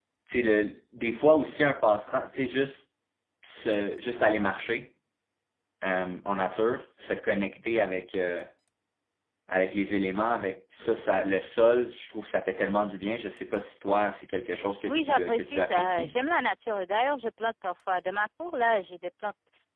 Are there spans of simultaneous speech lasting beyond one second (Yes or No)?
Yes